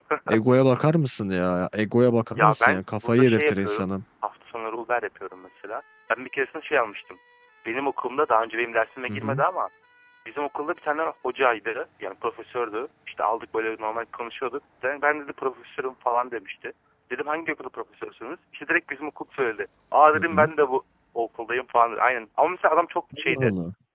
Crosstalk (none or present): present